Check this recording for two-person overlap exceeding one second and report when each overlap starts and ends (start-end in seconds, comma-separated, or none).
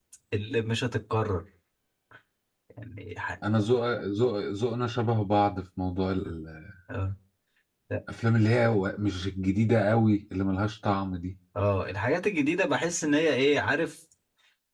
none